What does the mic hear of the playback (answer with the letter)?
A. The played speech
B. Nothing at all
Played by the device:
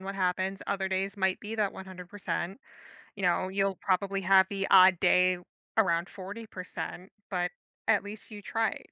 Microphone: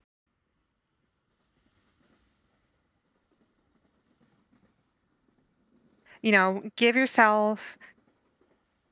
B